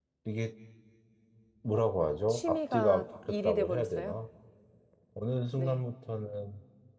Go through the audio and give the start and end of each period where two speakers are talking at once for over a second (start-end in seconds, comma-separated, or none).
2.3-4.2